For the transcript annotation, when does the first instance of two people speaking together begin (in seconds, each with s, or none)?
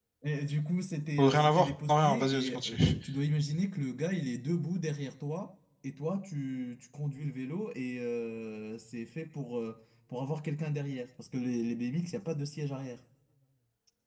1.2 s